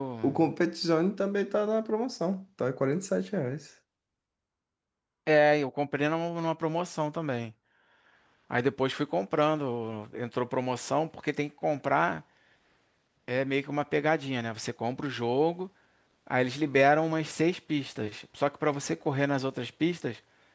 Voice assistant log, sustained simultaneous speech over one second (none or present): none